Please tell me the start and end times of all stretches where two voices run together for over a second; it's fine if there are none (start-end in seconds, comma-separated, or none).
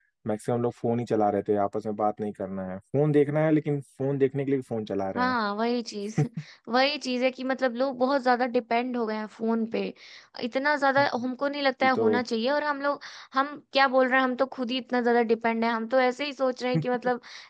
none